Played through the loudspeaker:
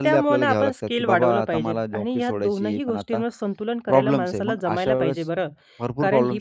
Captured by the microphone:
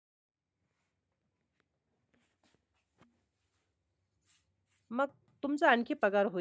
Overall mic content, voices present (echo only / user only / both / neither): user only